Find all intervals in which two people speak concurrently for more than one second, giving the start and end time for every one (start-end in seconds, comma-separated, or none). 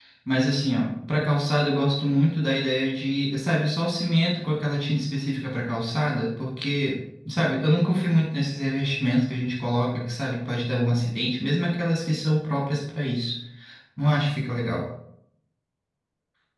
none